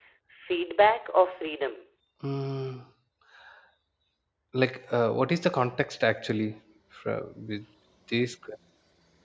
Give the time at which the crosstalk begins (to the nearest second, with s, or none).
none